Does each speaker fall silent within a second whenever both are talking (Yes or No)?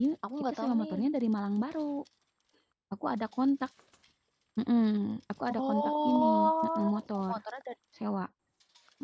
No